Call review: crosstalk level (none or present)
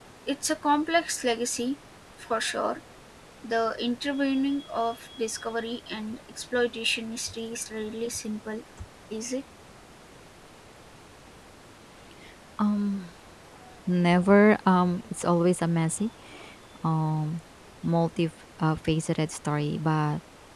none